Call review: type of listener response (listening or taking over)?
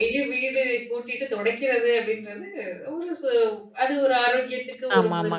taking over